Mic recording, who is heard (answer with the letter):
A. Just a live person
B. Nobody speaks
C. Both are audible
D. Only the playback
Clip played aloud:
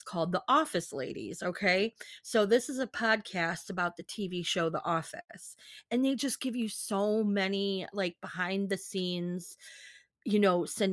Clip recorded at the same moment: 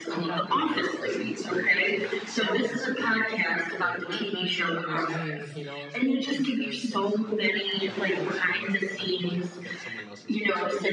C